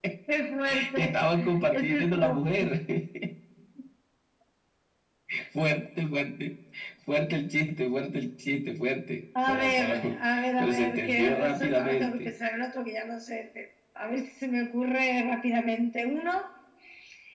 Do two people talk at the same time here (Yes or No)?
Yes